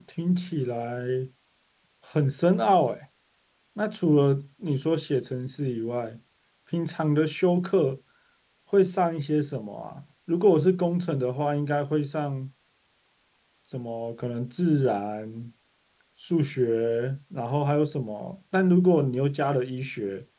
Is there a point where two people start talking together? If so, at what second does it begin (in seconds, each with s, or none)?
none